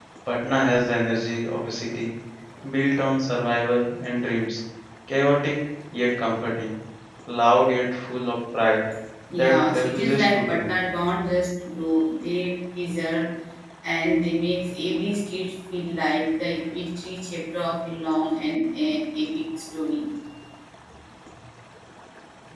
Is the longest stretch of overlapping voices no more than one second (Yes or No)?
No